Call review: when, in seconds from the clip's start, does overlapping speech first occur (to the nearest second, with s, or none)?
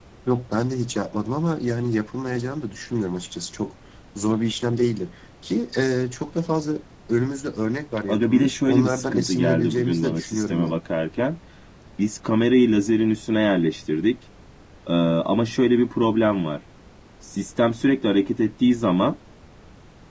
8 s